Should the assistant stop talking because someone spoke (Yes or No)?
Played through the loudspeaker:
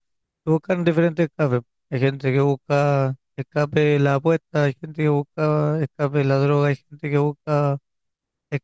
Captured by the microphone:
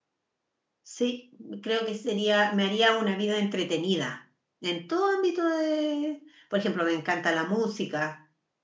Yes